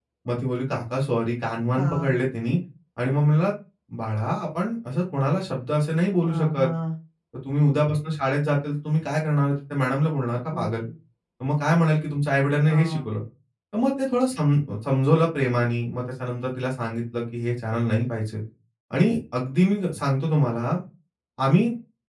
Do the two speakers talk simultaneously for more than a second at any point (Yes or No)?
No